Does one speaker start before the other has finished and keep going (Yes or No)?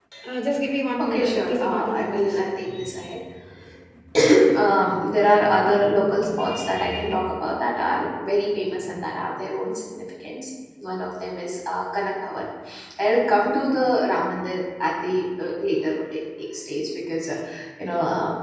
Yes